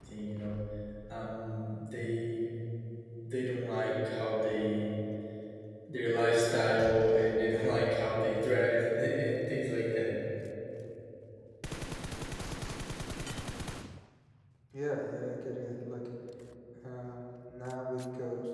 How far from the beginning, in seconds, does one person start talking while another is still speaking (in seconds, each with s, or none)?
none